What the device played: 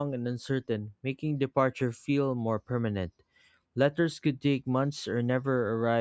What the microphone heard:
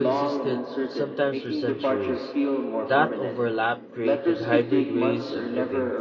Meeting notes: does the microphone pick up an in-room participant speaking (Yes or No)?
Yes